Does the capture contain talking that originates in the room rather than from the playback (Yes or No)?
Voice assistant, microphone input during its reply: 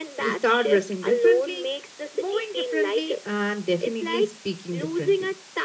Yes